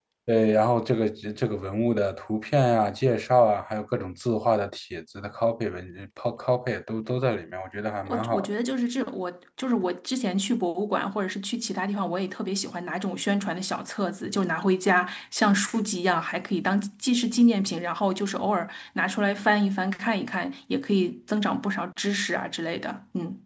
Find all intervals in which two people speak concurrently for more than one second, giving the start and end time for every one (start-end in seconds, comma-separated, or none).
none